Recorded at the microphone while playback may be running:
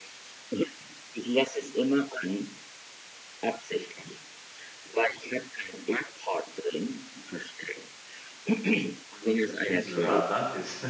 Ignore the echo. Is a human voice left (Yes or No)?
Yes